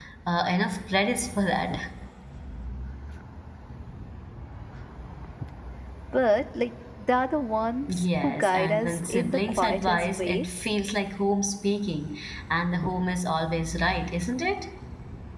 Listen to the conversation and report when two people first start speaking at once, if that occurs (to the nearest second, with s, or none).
8 s